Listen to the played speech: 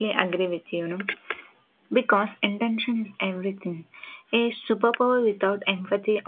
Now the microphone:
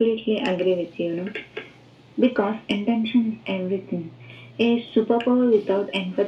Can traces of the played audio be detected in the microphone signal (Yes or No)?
Yes